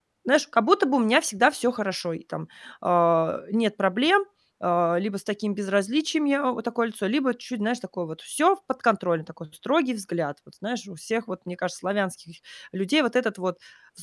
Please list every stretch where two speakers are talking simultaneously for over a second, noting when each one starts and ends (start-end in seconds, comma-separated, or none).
none